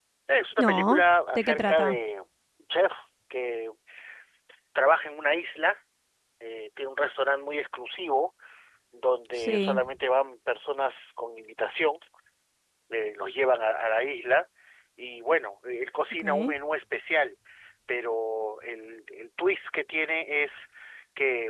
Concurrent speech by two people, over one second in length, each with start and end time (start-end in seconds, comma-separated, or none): 0.6-2.0